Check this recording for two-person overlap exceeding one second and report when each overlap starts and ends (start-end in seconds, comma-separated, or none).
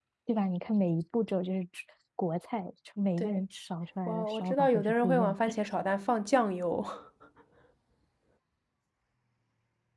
4.1-5.6